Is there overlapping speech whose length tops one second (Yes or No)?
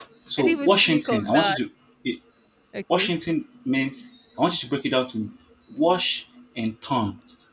Yes